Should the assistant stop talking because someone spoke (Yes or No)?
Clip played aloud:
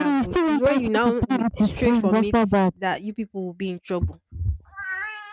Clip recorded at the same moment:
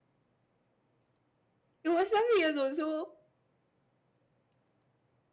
Yes